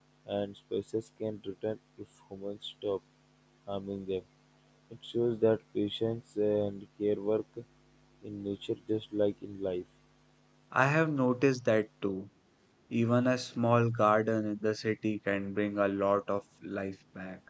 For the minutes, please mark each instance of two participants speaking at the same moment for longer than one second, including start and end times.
none

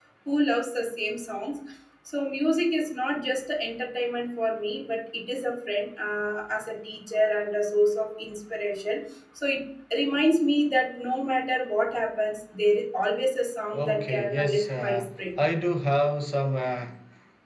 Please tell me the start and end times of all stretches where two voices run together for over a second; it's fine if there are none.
13.8-15.1

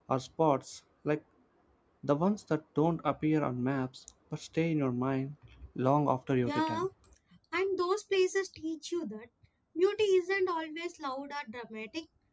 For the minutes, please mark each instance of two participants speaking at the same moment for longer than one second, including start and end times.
none

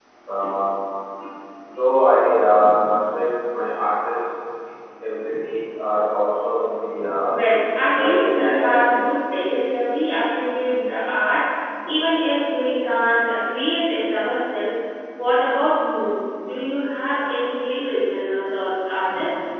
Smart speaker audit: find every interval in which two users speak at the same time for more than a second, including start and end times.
7.9-9.1

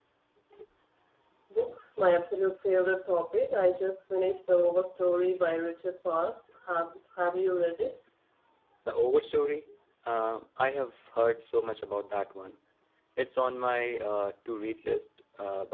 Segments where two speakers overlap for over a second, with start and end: none

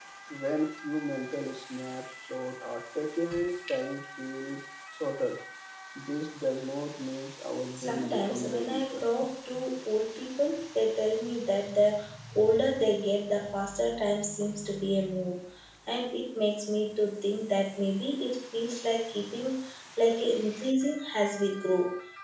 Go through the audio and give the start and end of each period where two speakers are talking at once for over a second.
7.8-9.0

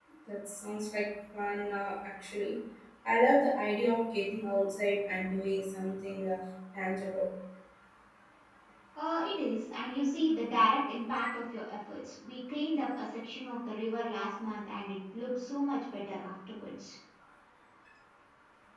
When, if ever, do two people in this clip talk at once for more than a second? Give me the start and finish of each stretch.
none

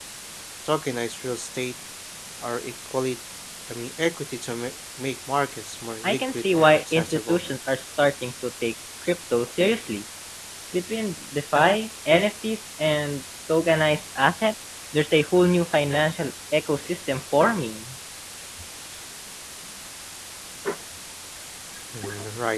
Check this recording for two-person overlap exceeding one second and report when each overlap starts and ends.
6.0-7.4

